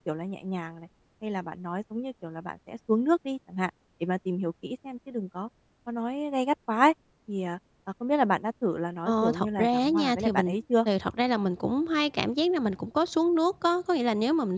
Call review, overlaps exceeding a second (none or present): present